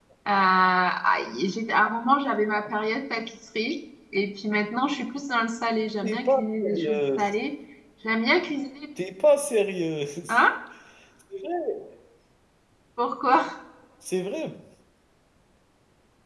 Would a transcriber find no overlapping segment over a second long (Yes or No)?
No